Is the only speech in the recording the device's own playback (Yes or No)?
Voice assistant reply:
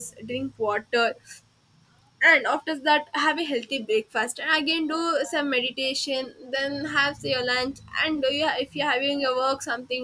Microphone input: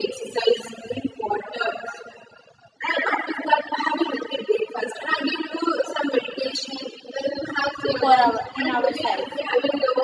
No